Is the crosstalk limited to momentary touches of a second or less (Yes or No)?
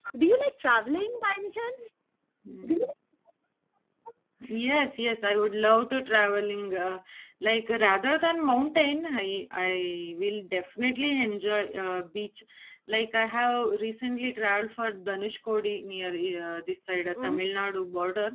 Yes